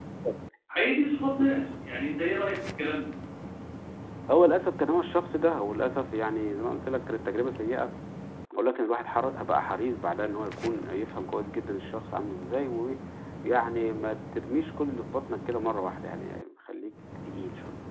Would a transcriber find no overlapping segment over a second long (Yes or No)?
Yes